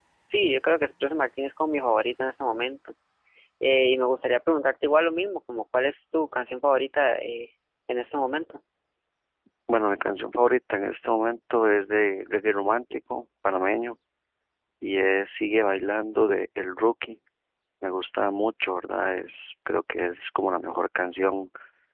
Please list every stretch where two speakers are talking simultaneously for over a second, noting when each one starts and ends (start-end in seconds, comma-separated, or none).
none